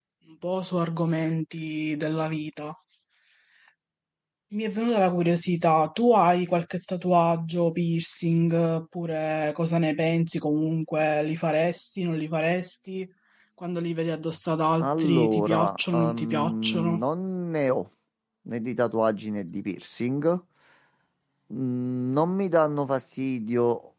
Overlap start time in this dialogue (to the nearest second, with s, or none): 15 s